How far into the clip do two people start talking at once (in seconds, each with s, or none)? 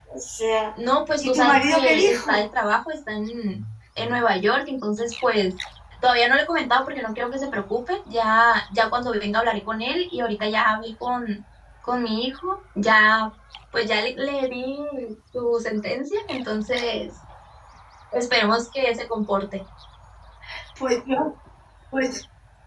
1.2 s